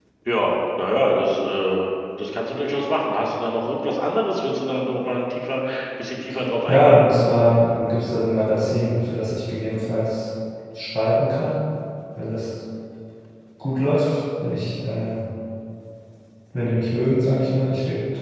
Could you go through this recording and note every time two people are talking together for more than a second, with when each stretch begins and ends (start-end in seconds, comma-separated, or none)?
none